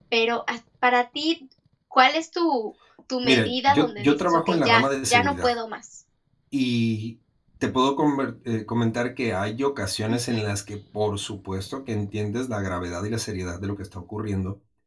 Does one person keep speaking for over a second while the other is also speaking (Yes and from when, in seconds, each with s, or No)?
Yes, from 3.2 s